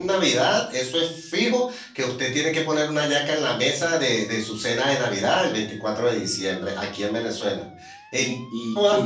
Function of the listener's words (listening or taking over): taking over